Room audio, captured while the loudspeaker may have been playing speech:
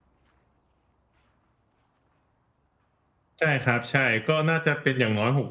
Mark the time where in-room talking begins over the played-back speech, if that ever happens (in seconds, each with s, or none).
3.4 s